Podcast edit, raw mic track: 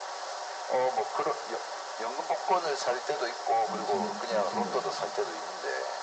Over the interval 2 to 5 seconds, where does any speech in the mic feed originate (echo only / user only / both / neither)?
both